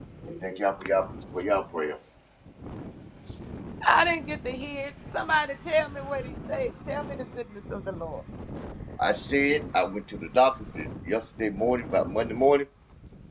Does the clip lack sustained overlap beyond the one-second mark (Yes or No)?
Yes